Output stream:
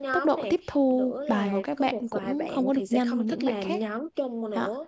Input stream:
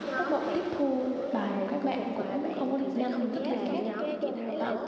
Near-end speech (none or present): present